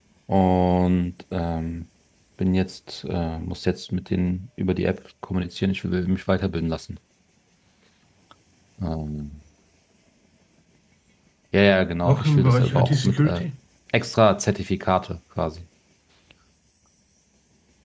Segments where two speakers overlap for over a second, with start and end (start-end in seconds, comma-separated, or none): 12.1-13.5